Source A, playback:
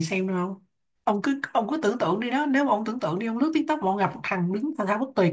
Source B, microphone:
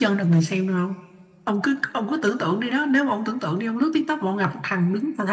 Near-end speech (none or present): none